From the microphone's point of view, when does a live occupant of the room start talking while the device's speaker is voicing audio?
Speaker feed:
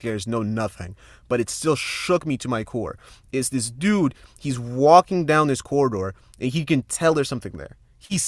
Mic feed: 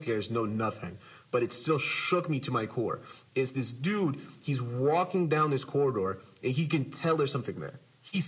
none

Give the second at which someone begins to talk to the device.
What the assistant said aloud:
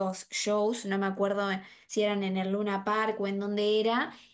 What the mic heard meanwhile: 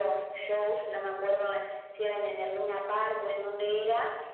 none

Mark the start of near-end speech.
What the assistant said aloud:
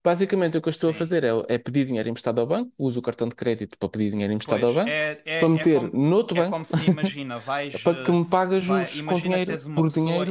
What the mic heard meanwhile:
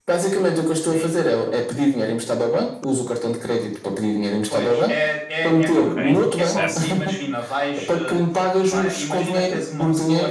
6 s

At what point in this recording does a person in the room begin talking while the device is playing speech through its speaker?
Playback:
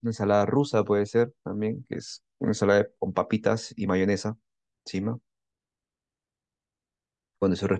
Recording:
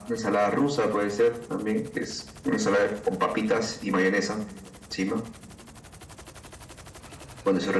none

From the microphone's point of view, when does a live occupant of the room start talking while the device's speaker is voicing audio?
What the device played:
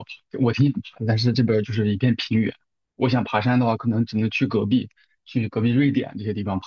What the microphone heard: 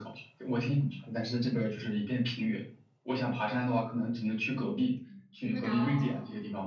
5 s

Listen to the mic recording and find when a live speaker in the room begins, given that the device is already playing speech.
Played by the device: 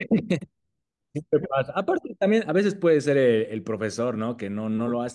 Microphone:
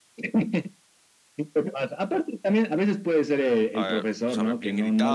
4 s

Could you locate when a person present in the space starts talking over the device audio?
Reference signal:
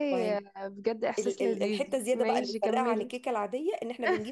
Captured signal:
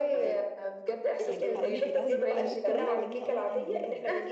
1 s

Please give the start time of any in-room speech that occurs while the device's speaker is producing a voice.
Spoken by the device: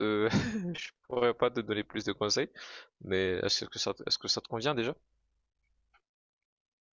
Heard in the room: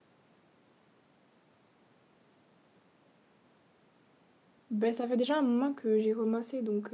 5 s

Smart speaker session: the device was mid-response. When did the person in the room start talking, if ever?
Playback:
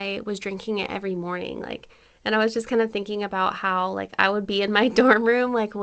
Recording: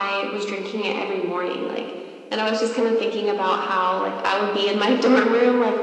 none

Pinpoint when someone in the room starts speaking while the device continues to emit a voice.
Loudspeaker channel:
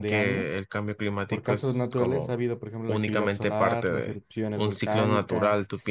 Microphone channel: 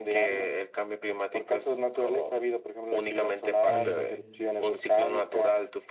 4 s

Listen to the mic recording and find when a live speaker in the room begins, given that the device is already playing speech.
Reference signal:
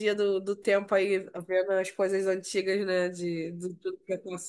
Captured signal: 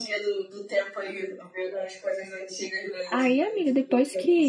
3 s

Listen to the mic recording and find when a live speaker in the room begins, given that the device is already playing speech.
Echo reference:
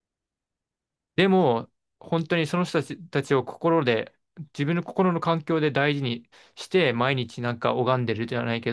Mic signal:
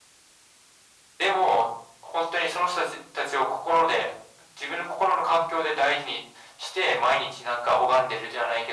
none

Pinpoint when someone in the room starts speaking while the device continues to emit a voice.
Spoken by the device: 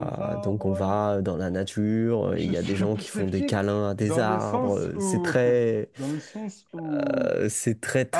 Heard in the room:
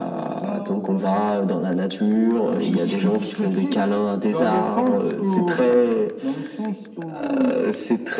none

